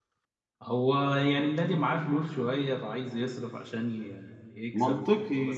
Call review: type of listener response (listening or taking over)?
taking over